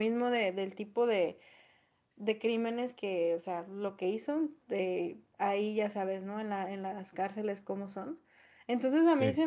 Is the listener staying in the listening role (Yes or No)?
Yes